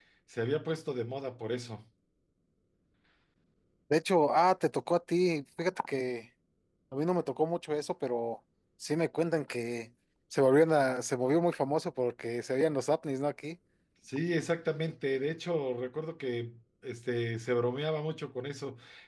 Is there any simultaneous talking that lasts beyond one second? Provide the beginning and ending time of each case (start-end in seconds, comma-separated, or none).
none